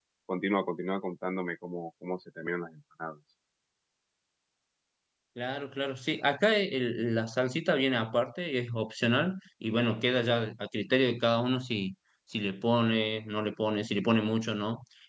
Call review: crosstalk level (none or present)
none